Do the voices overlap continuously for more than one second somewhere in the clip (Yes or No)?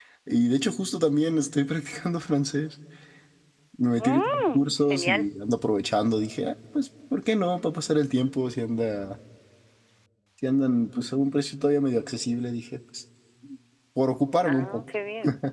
Yes